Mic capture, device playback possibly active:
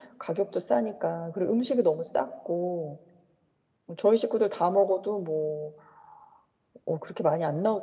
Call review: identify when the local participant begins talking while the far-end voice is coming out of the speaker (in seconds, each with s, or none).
none